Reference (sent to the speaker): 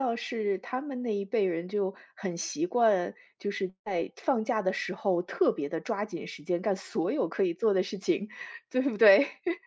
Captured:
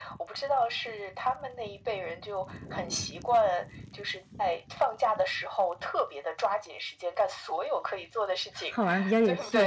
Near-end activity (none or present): present